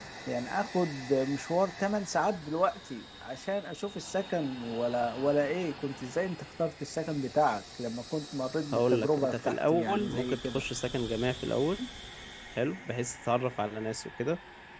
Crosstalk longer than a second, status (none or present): present